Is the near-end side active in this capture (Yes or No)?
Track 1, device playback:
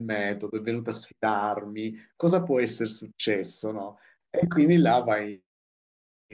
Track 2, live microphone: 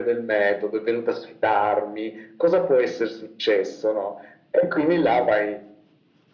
No